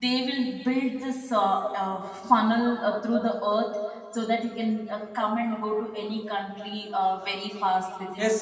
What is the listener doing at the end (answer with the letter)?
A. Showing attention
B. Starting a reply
B